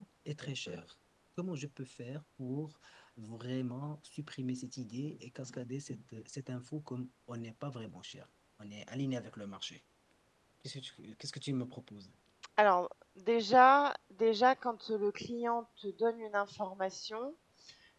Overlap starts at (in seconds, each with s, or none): none